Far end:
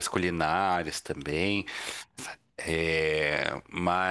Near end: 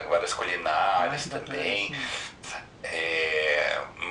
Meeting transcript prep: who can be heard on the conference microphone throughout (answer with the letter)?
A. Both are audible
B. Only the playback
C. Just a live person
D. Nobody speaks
A